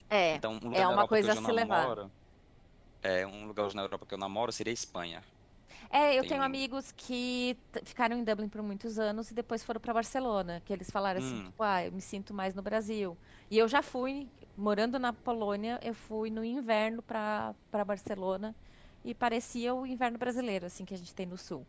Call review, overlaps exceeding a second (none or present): present